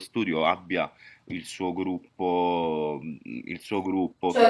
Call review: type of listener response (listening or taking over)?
taking over